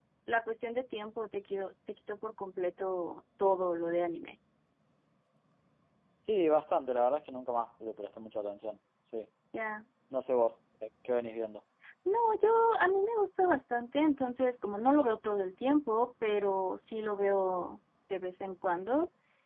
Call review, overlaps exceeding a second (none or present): none